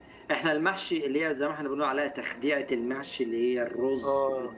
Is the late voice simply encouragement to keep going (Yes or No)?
Yes